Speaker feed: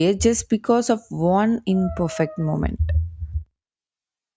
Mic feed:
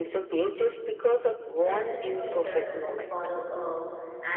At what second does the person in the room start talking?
1.6 s

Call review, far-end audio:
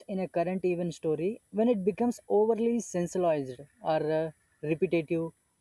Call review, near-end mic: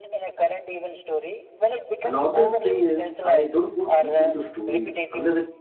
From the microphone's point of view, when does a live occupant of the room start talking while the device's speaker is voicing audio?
2.0 s

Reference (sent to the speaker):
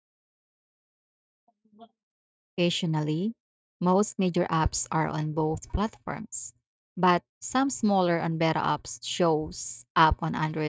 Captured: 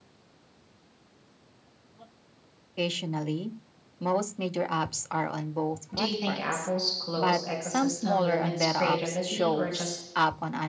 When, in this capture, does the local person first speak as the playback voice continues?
5.9 s

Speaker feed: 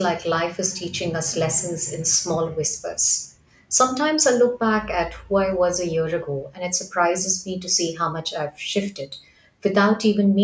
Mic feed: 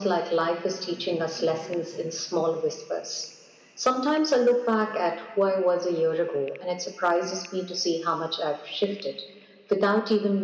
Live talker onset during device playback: none

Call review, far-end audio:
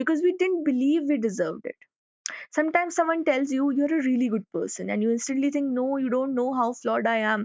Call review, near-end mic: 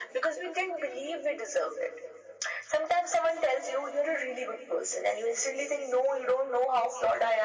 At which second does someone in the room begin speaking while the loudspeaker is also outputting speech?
none

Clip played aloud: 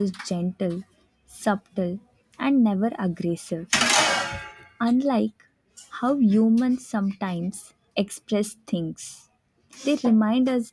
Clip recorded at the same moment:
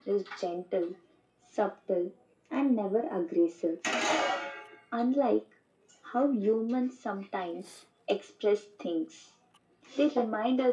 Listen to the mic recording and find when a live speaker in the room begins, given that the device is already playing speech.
none

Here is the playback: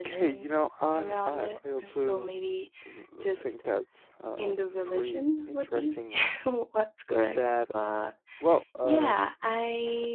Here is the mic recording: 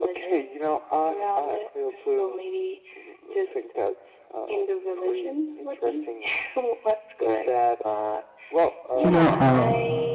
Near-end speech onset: 9.0 s

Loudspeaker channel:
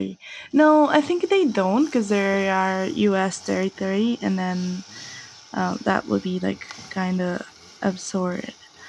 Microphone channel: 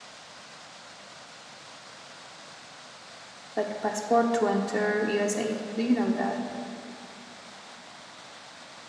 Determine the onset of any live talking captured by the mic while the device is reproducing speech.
3.6 s

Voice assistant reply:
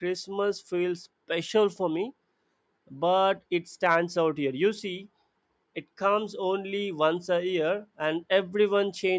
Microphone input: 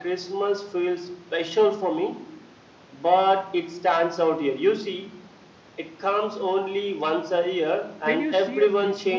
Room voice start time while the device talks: 8.0 s

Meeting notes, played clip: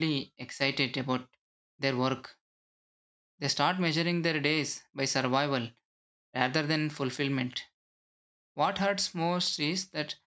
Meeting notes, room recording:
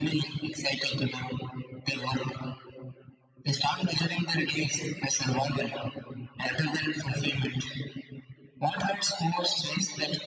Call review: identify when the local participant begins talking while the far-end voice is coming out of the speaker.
none

